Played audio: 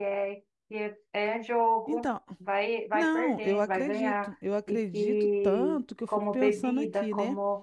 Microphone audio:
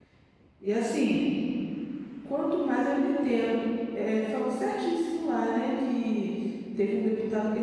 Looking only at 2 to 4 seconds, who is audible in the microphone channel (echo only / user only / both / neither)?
user only